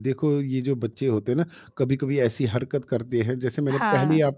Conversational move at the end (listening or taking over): listening